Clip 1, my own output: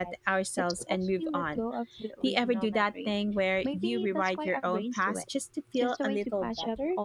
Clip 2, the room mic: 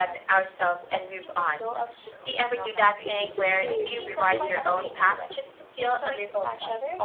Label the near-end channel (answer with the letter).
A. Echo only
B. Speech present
B